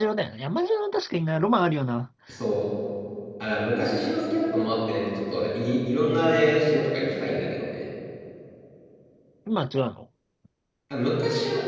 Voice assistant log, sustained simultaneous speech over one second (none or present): none